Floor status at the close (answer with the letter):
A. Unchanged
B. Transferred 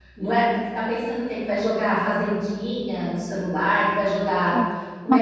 A